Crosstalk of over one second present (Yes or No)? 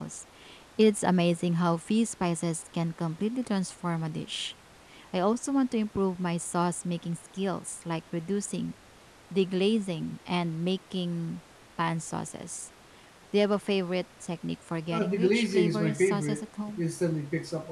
Yes